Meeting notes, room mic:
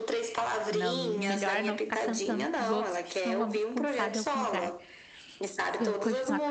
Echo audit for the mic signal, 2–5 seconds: both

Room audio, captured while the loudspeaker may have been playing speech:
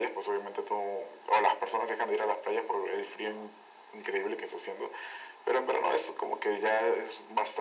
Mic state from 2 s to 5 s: echo only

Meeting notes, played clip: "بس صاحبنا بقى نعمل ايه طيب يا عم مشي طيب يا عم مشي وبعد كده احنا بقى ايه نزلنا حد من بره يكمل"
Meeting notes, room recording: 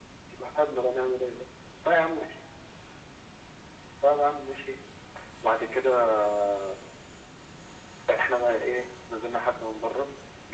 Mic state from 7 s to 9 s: echo only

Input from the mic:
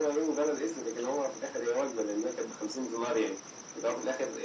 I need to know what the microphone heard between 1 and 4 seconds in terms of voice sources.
echo only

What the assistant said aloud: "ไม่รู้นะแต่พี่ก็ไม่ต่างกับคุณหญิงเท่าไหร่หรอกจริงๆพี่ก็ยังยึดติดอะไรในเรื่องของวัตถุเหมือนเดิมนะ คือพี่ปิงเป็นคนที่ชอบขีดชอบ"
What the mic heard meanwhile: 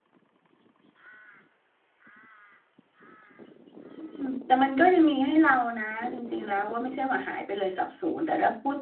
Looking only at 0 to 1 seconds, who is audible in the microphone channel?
neither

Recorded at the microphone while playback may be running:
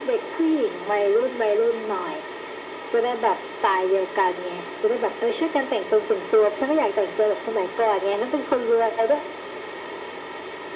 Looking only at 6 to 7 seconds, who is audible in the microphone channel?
echo only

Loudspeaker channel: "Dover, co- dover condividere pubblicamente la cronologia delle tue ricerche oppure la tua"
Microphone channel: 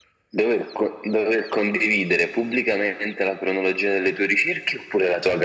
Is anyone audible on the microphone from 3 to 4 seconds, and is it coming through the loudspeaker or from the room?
echo only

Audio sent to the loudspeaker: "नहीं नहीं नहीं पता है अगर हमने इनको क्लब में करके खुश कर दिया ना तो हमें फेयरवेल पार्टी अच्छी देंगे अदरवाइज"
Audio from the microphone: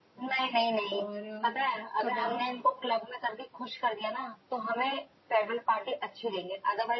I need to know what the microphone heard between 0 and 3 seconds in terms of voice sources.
both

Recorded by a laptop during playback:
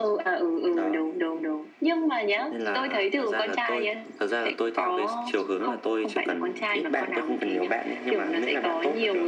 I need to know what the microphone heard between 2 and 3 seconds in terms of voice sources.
echo only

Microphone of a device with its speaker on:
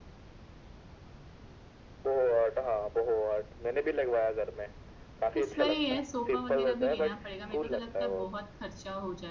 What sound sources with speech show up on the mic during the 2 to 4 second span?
echo only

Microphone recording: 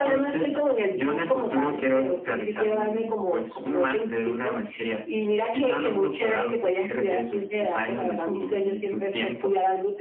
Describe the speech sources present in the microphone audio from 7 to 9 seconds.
echo only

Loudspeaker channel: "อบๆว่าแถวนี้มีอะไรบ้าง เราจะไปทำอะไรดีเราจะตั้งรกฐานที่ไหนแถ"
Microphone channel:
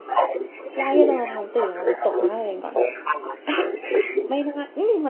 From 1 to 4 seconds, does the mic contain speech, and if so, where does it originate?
both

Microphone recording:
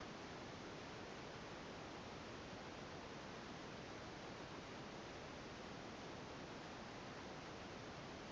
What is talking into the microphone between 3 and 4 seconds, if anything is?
neither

